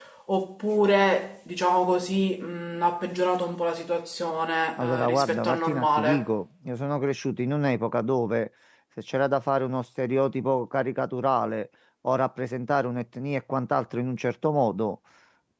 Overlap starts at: 4.8 s

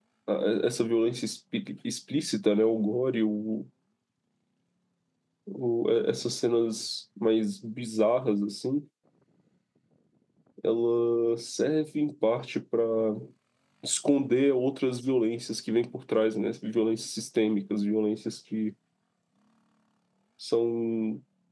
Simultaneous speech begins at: none

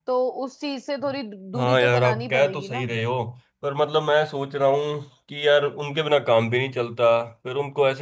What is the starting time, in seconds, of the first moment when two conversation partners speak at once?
1.6 s

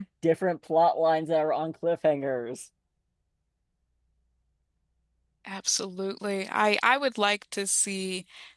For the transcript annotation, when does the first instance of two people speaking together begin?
none

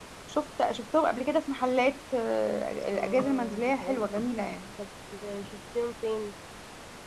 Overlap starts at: 2.9 s

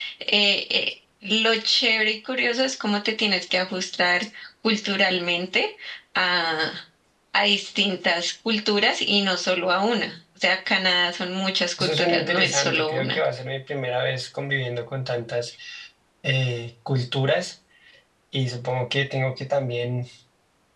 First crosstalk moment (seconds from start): 11.8 s

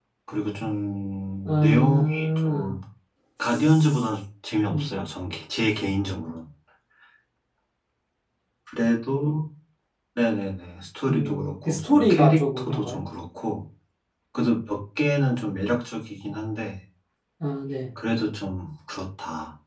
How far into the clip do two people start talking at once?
1.4 s

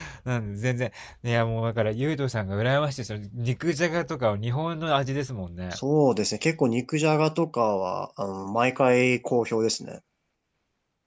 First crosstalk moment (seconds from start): none

